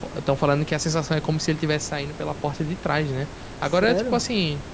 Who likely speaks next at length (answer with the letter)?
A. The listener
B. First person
B